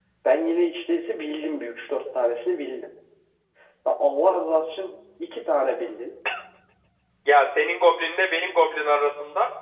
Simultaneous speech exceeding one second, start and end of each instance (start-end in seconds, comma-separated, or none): none